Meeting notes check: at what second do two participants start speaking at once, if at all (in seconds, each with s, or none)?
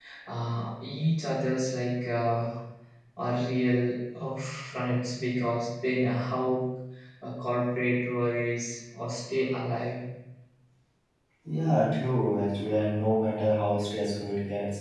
none